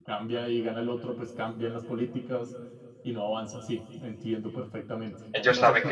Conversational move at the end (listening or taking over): taking over